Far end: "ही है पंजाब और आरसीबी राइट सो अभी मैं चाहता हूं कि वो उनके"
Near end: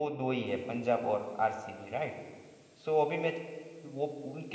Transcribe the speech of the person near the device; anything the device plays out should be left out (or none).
none